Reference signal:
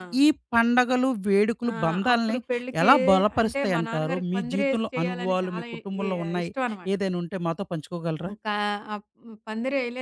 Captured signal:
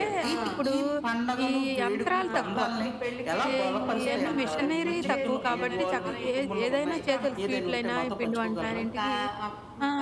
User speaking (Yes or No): Yes